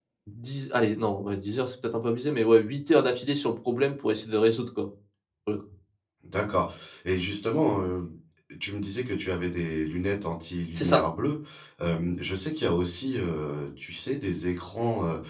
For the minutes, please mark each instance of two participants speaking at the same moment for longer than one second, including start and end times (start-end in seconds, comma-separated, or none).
none